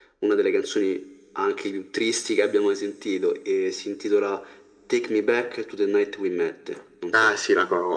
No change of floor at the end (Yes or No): No